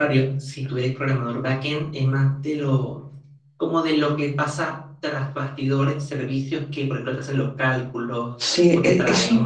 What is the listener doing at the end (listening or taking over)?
taking over